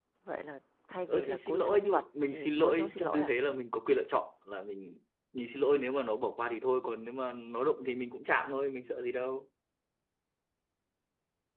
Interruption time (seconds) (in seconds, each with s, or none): 1.1 s